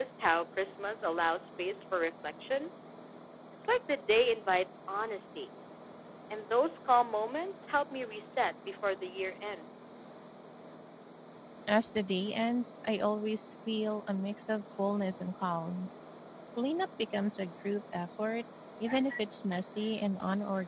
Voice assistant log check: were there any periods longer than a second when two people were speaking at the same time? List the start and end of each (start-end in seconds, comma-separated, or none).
none